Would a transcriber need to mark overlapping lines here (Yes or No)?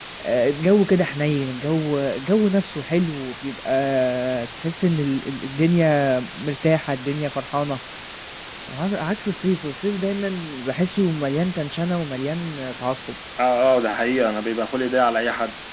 No